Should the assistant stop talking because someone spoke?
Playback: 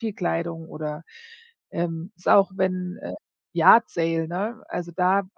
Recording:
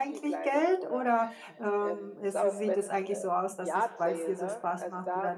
Yes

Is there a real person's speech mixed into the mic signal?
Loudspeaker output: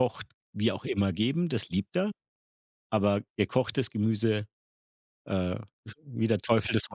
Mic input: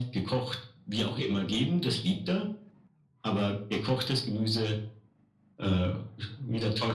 No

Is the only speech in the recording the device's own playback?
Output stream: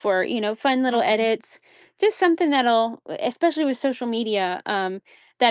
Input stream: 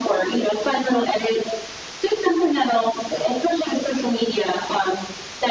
Yes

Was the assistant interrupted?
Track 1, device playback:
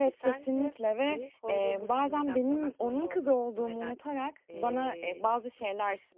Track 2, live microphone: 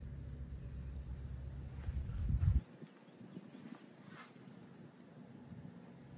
No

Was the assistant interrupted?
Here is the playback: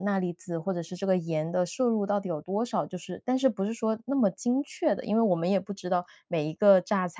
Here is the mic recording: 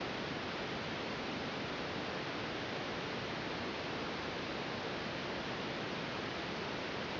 No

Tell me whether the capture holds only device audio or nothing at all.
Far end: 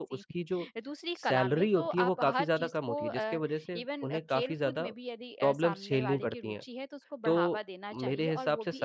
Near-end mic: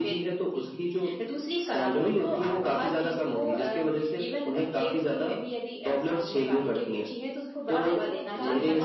No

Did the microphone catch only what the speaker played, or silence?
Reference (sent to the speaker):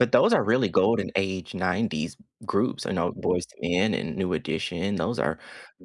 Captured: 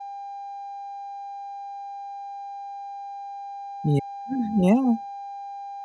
No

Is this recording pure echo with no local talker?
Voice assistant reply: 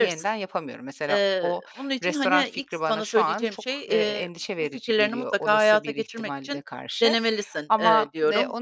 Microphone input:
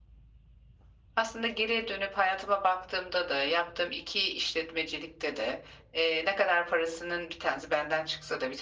No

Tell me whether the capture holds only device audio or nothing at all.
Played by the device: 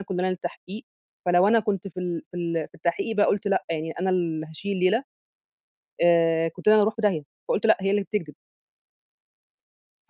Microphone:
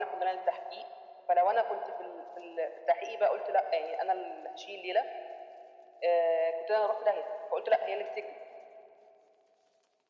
Yes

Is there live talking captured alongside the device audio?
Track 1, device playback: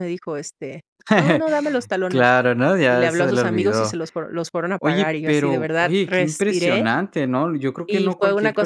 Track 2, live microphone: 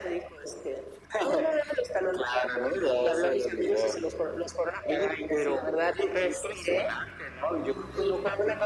No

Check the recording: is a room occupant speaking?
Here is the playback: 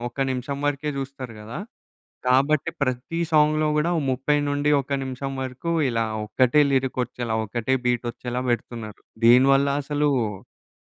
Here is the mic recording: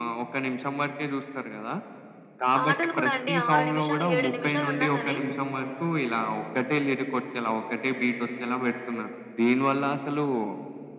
Yes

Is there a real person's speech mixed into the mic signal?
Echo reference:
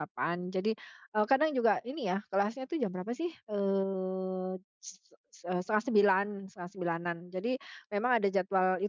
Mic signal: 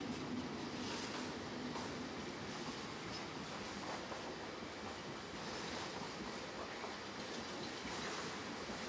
No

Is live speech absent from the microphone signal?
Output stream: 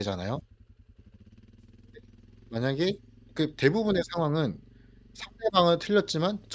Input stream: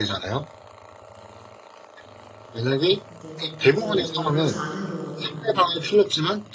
No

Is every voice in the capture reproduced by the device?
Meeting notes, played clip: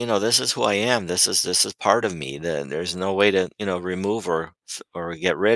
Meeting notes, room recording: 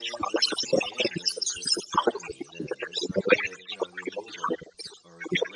Yes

